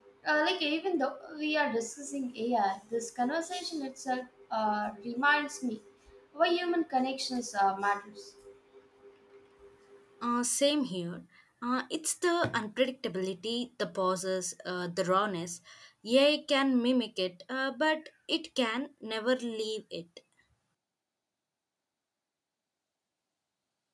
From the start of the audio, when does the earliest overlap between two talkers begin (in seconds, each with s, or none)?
none